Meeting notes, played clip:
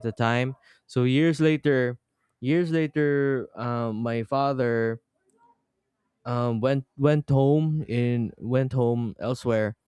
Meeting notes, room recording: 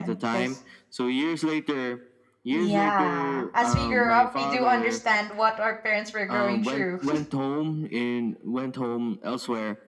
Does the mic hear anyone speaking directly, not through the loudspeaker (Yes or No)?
Yes